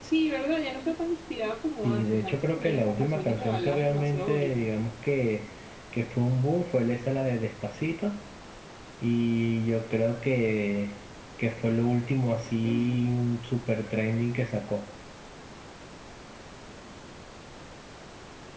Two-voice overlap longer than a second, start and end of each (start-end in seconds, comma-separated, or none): 1.8-4.6